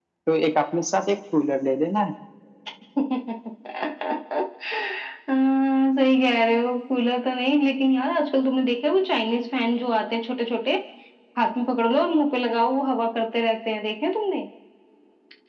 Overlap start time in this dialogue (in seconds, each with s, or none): none